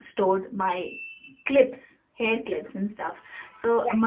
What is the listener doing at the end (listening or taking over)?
listening